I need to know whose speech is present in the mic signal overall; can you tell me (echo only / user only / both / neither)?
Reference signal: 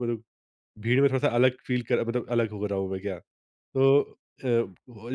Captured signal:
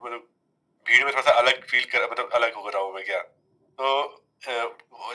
echo only